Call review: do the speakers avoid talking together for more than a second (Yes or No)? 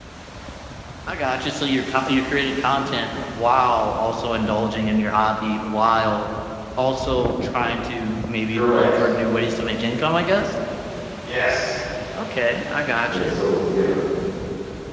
Yes